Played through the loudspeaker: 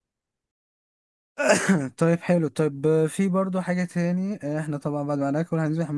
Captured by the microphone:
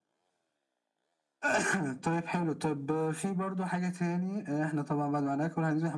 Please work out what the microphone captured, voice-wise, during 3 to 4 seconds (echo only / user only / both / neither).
echo only